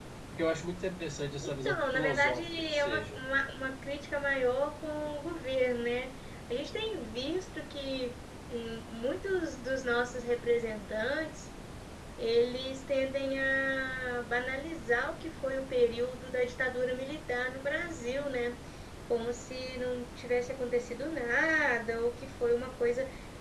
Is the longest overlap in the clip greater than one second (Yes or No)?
Yes